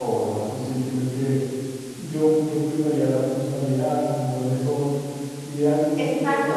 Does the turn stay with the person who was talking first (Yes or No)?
No